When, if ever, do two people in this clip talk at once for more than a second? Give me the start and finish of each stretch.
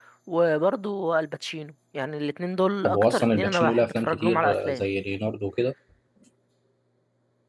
2.8-4.8

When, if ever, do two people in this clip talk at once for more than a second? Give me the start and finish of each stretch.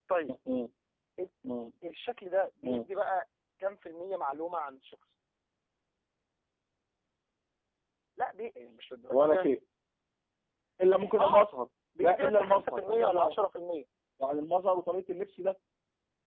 12.0-13.4

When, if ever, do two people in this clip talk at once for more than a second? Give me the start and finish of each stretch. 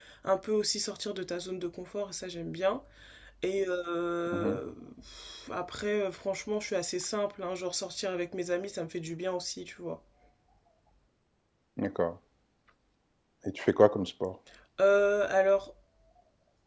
none

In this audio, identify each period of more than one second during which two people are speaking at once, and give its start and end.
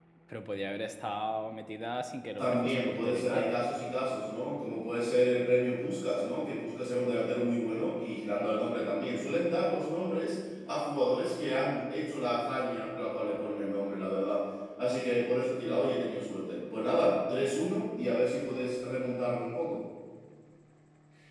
2.4-3.7

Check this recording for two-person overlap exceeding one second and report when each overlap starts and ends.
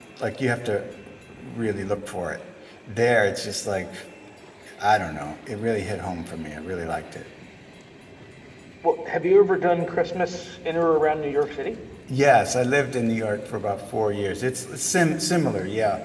none

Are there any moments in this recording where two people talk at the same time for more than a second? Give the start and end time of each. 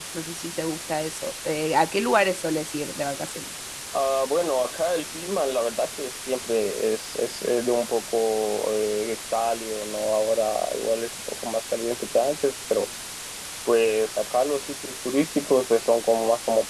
none

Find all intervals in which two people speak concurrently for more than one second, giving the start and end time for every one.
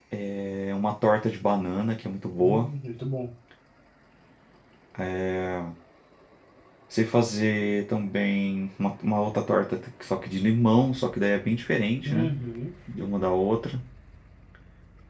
none

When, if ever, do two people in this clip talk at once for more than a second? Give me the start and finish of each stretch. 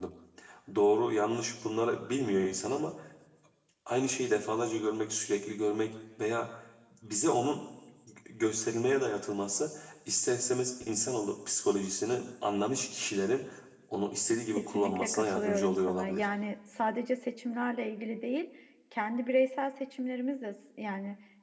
14.6-16.2

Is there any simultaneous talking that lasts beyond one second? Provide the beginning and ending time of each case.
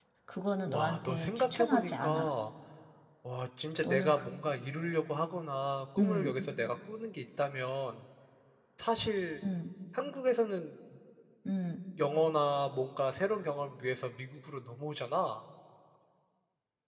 0.7-2.3

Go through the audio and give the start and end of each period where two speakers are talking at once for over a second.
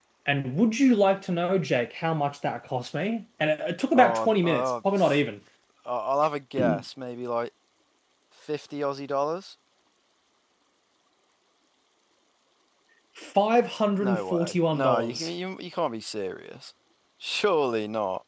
4.0-5.2, 14.0-15.3

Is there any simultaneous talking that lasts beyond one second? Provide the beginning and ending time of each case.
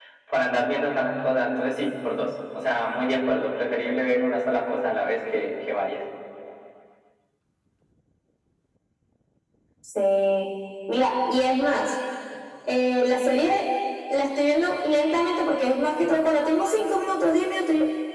none

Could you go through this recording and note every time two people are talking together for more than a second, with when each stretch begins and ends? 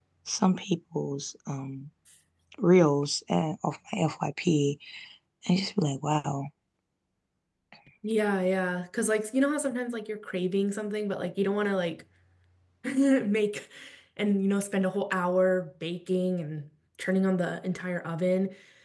none

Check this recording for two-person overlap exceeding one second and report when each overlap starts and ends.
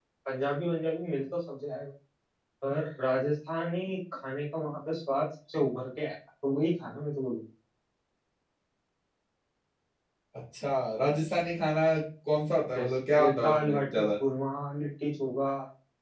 12.8-14.0

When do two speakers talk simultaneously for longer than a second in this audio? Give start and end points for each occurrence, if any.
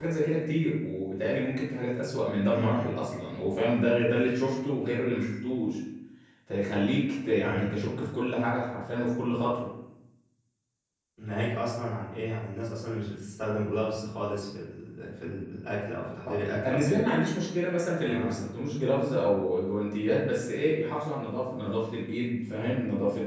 none

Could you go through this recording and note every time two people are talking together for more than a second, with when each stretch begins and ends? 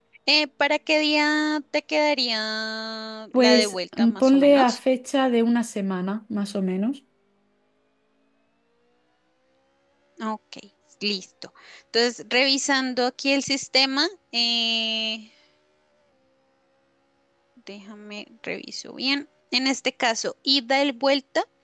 3.4-4.8

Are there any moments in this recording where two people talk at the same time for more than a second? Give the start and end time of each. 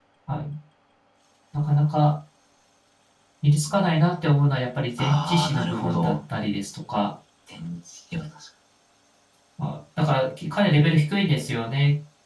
5.0-6.2

